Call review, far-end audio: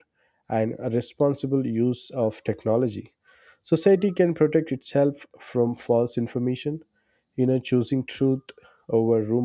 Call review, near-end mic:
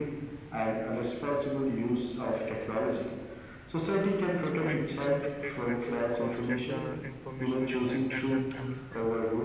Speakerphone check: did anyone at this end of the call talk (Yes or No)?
Yes